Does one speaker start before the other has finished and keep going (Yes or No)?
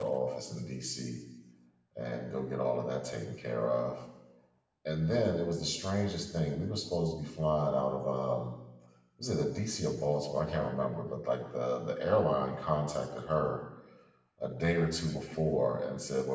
No